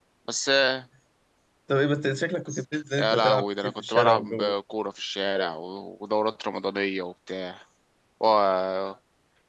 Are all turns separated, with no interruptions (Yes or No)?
No